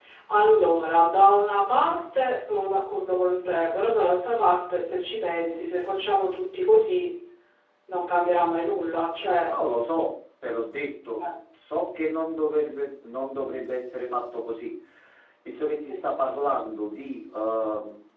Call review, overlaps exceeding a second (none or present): none